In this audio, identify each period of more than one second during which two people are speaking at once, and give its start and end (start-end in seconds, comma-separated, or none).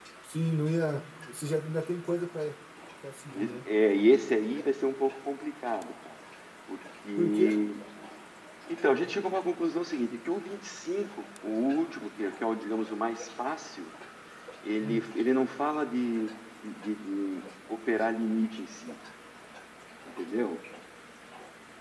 none